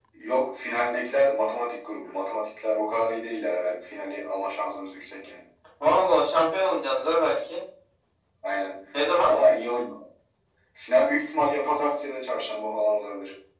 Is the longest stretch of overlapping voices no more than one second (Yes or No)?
Yes